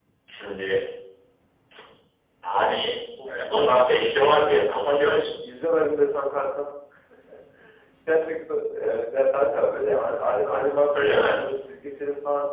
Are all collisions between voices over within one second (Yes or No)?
No